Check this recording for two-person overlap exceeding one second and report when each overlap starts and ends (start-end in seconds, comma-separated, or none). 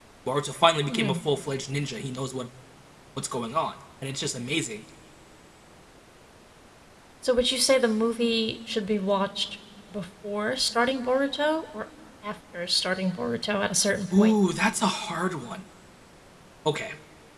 none